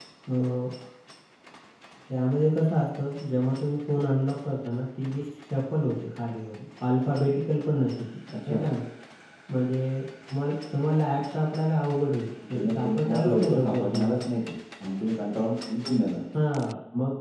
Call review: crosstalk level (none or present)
present